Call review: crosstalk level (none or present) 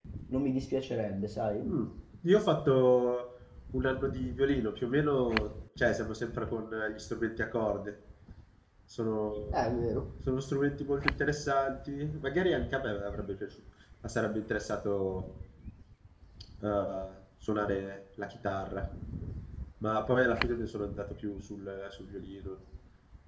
none